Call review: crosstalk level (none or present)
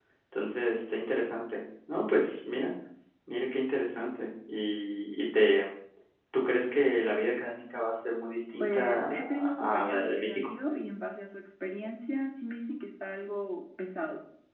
present